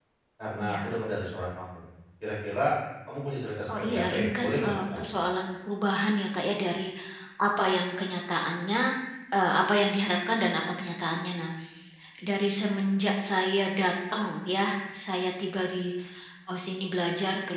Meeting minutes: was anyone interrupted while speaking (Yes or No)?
Yes